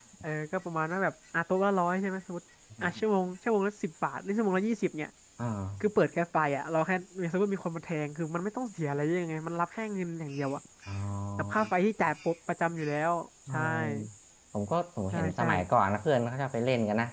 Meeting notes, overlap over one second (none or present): none